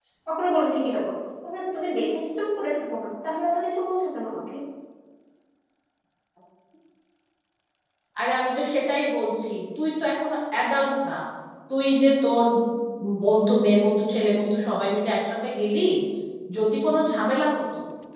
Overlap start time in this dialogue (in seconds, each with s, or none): none